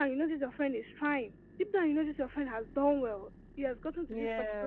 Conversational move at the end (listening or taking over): listening